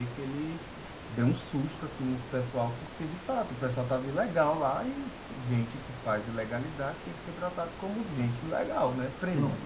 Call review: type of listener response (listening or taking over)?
taking over